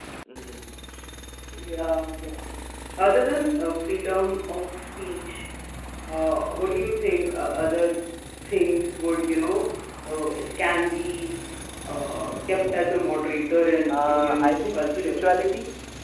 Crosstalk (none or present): present